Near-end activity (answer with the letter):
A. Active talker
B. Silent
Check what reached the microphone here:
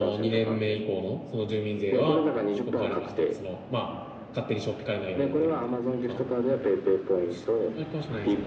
A